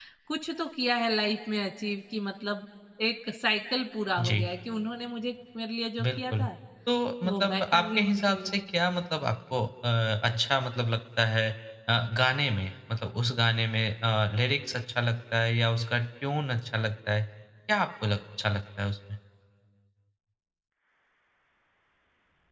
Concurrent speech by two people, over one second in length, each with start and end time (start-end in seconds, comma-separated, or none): 7.3-8.5